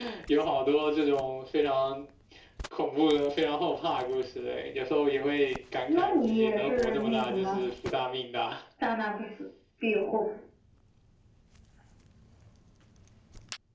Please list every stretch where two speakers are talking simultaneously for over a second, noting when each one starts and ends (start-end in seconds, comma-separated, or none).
5.9-7.7